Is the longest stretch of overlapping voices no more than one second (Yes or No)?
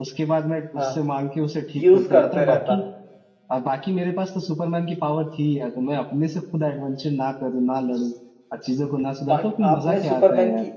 No